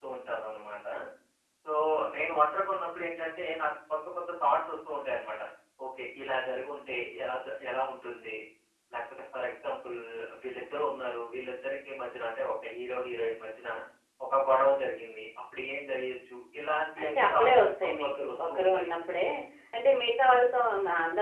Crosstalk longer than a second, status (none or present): present